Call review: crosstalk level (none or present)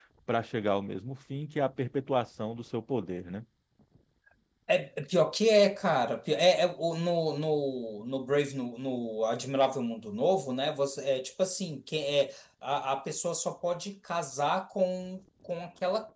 none